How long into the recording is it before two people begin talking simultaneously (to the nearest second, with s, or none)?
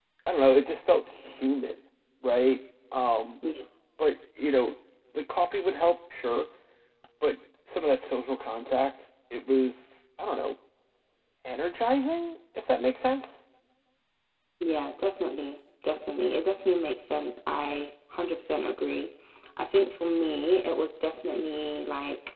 none